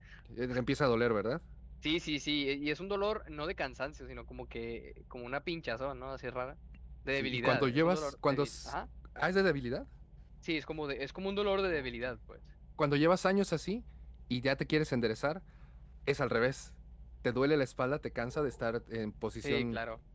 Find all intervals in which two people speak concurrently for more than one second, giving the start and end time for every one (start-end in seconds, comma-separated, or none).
7.2-8.7